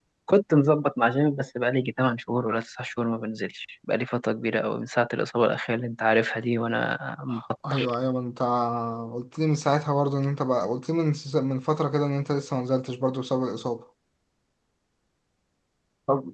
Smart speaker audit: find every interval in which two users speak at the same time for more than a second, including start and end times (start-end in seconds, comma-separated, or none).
none